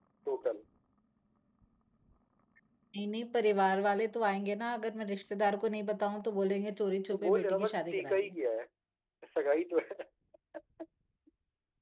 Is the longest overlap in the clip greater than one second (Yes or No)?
Yes